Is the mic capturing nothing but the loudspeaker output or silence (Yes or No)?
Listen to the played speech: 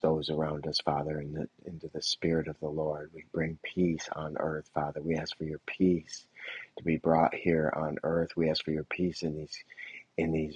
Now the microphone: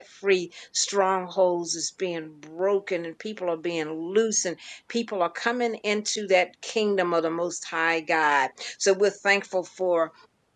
No